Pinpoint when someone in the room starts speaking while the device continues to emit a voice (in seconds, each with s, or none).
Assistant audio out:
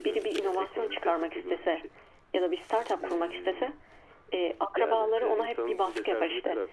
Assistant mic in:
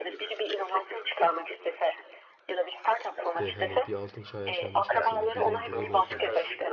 3.4 s